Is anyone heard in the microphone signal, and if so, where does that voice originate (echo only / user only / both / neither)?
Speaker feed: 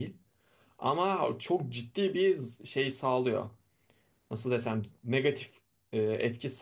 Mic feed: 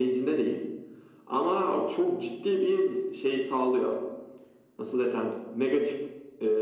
echo only